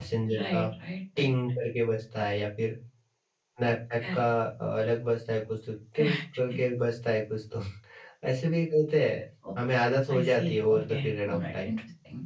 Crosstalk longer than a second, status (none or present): present